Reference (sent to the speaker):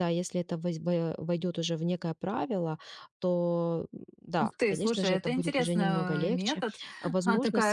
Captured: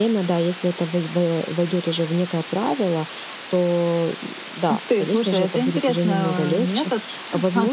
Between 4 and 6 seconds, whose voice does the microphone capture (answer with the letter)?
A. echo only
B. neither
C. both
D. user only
A